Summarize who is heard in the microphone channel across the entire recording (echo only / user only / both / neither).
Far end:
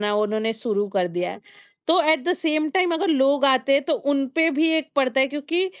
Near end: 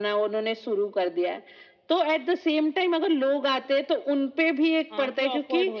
both